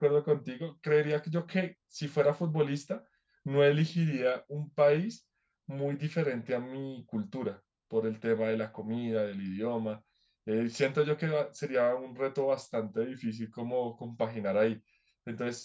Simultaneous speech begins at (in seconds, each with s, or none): none